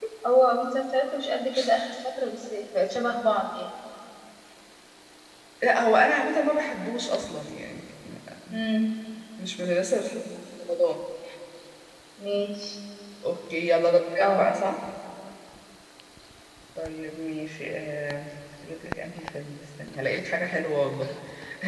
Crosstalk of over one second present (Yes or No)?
No